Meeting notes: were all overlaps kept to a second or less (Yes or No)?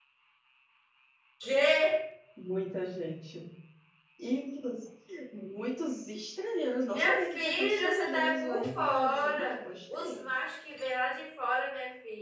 No